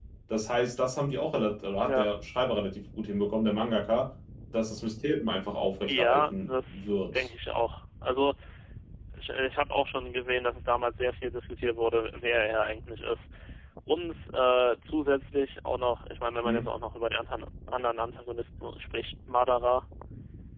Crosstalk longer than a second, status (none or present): present